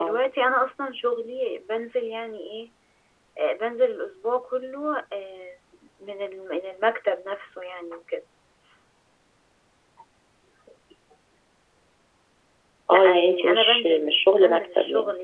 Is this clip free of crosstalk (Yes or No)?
No